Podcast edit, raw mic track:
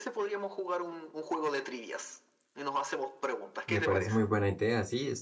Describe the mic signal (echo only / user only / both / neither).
both